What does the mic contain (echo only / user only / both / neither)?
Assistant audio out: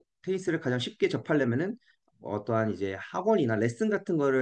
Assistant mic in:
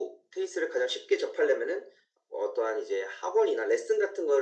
echo only